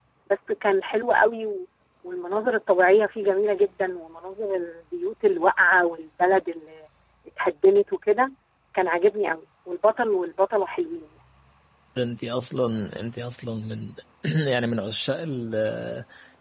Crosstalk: none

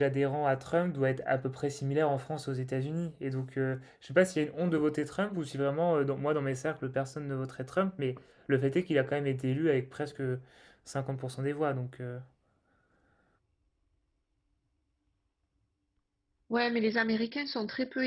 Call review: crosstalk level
none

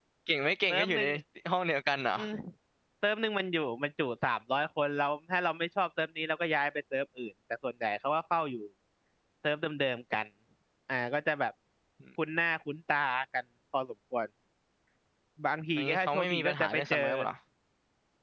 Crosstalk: present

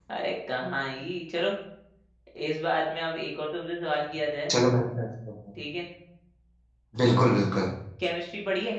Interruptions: none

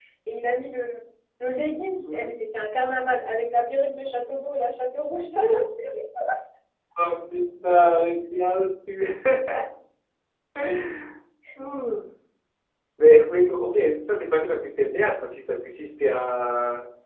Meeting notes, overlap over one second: none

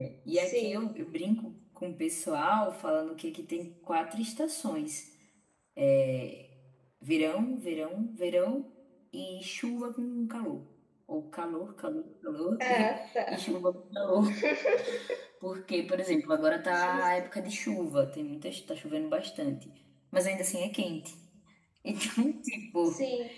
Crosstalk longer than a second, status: none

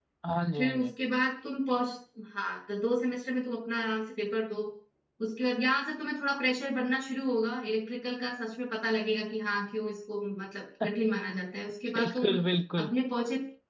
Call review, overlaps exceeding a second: none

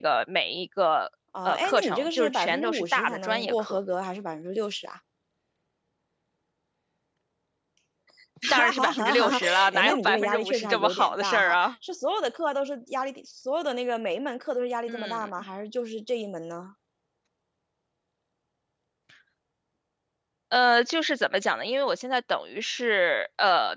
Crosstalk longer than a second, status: present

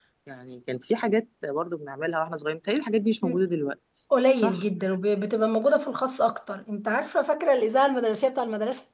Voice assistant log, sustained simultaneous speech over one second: none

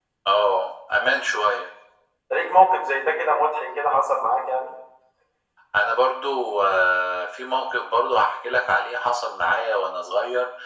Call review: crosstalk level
none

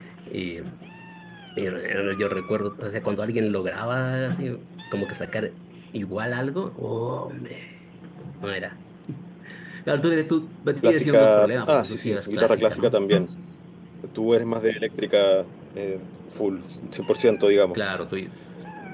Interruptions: present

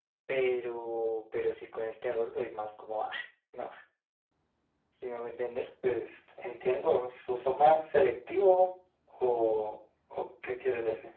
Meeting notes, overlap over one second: none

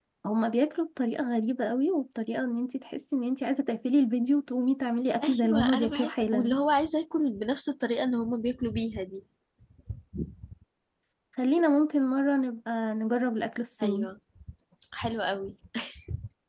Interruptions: present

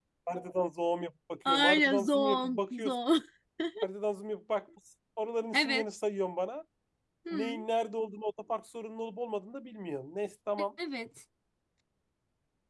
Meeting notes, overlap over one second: present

